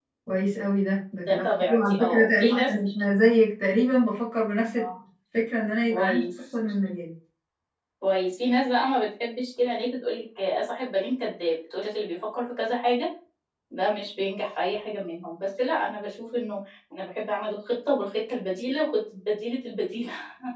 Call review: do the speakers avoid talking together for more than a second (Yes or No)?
No